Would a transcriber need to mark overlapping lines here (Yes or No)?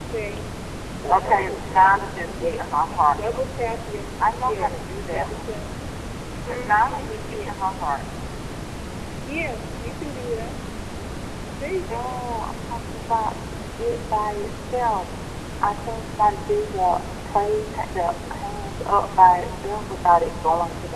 Yes